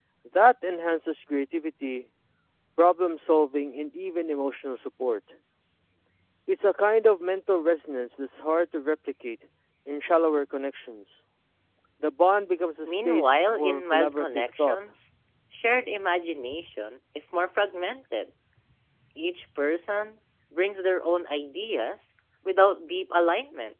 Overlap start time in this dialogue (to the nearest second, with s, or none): 13 s